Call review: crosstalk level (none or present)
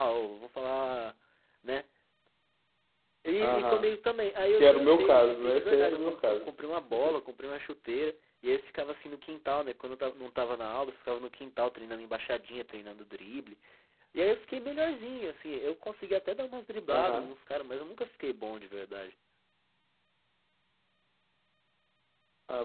present